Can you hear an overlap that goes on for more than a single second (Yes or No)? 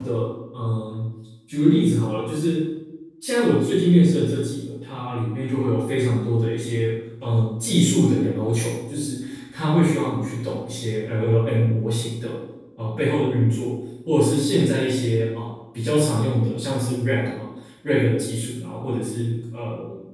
No